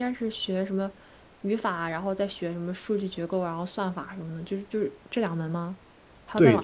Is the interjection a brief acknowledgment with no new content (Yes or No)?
No